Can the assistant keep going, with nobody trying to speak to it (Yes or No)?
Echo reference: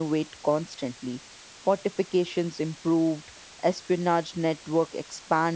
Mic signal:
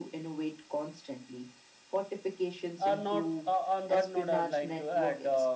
No